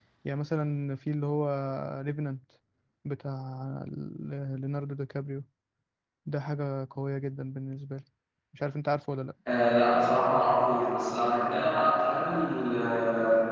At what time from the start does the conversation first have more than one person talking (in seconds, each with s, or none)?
none